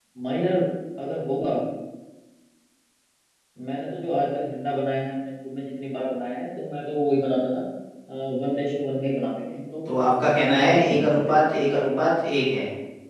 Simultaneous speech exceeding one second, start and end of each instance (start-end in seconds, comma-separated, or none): 10.3-11.9